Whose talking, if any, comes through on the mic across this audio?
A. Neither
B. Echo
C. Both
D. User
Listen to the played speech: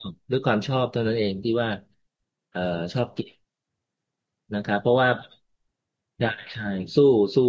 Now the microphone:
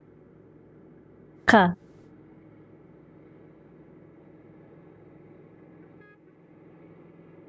D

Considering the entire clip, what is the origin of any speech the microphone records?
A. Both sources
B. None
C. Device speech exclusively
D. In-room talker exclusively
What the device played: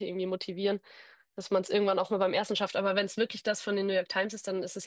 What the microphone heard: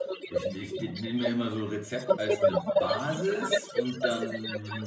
A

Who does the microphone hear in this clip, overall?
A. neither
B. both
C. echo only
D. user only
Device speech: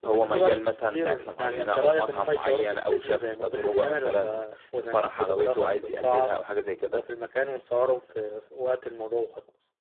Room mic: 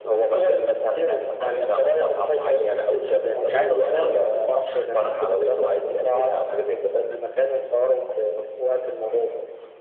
B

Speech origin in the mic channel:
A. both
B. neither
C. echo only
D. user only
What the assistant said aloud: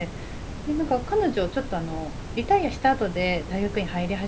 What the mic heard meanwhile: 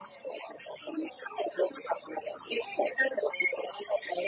C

